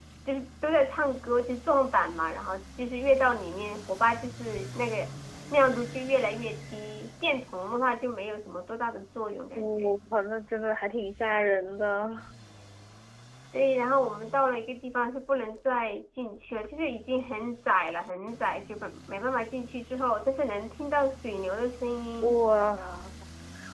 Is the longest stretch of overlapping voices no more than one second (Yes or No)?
Yes